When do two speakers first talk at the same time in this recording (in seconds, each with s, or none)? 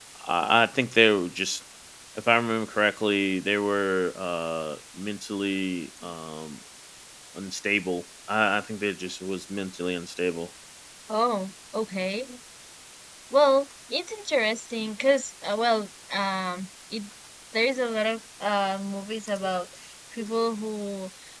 none